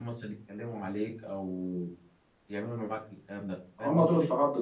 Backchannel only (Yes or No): No